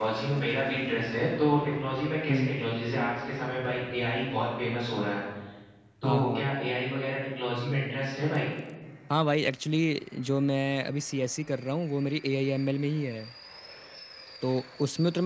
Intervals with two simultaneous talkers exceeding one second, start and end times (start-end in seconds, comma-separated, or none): none